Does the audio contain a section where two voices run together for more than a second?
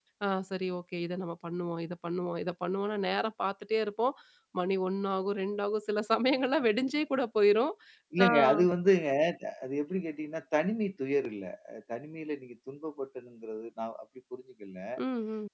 No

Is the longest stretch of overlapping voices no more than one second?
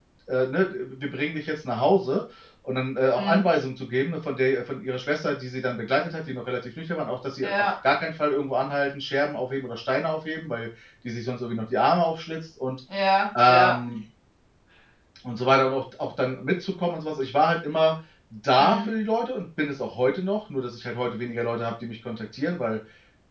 Yes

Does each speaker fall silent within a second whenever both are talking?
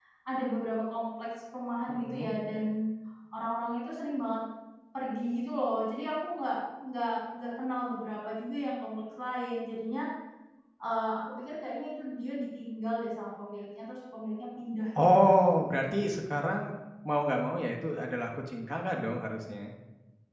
Yes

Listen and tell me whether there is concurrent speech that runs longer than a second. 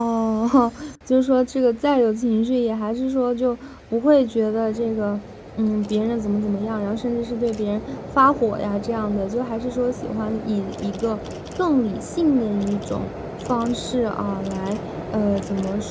No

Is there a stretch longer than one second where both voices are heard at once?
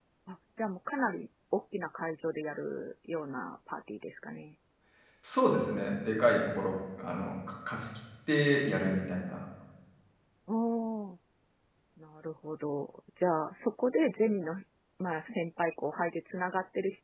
No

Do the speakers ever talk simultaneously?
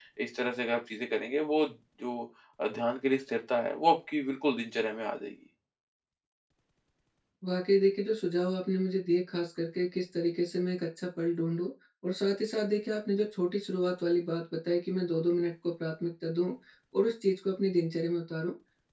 No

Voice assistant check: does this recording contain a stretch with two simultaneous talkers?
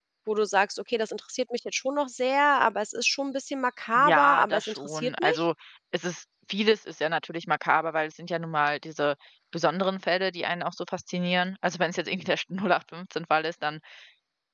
Yes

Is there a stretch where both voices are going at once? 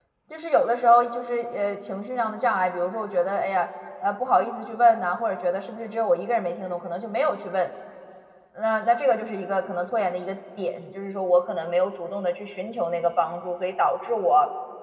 No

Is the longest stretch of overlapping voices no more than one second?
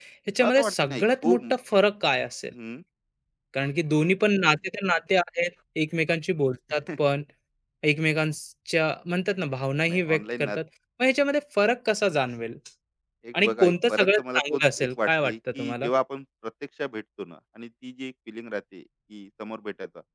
No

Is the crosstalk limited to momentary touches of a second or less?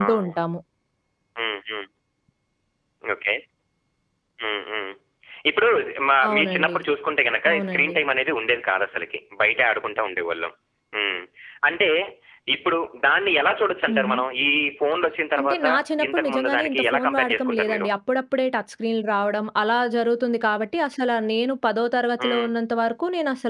No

